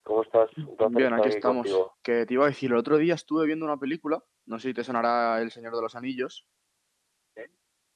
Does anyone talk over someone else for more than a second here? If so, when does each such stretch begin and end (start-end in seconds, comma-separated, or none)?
0.6-1.8